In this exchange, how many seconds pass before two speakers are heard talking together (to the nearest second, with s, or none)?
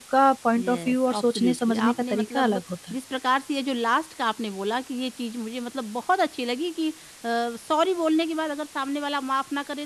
1 s